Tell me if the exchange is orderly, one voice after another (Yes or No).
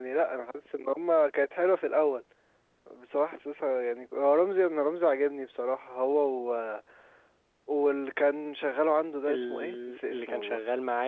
No